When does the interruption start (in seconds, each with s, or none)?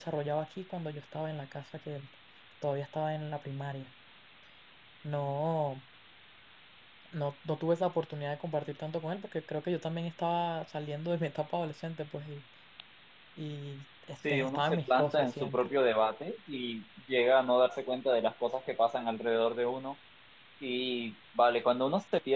14.2 s